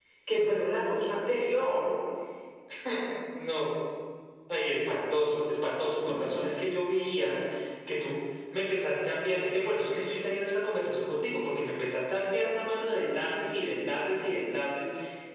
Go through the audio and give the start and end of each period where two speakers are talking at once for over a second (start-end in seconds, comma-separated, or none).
none